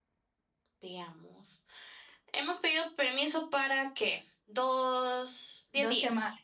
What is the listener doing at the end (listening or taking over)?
taking over